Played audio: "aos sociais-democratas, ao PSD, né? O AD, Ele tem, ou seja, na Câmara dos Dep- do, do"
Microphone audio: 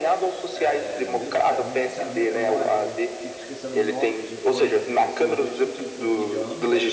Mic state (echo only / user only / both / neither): both